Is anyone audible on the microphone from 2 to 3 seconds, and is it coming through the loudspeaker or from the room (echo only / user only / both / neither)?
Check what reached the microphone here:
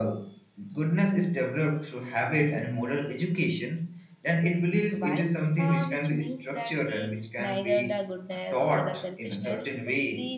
echo only